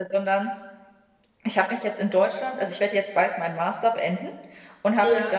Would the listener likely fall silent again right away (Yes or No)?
Yes